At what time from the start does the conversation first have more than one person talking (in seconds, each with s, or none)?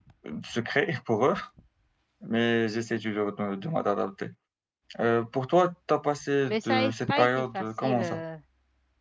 6.5 s